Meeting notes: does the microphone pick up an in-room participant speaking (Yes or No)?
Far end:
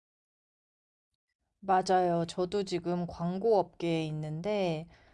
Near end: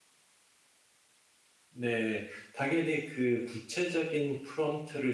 Yes